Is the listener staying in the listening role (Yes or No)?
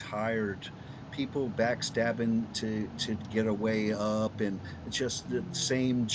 Yes